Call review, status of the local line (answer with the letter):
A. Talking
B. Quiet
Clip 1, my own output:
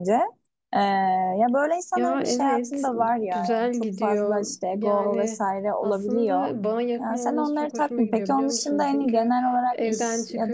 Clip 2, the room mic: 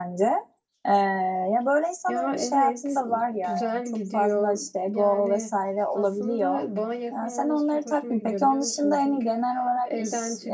B